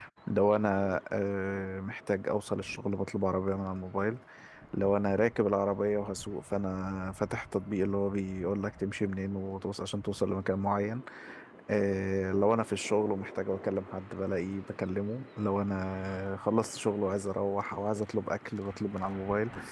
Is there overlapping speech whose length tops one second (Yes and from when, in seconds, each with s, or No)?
No